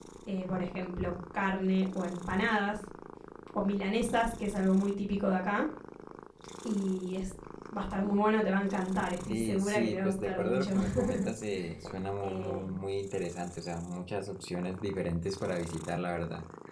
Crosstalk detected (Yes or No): Yes